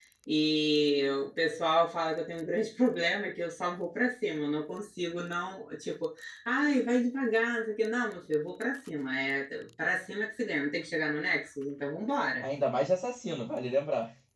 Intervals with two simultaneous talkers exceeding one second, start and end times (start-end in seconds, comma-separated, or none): none